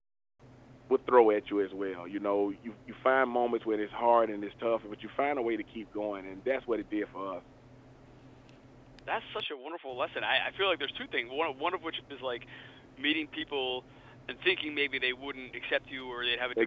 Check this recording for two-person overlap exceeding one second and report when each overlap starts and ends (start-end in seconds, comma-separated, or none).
none